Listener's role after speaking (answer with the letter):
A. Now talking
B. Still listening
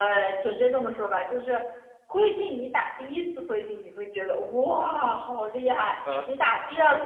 B